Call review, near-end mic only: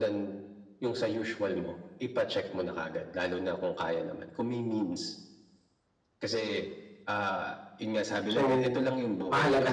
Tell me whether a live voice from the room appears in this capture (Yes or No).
Yes